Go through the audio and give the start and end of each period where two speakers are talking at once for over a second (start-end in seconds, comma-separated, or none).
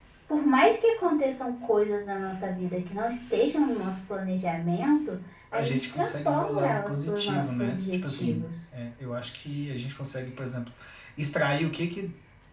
5.5-8.5